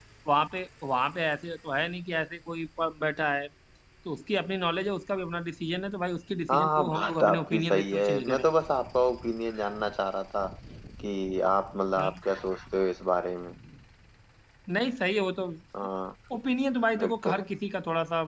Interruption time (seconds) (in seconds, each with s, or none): 6.5 s